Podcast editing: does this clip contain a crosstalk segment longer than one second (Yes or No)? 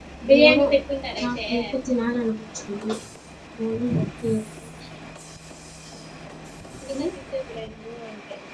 No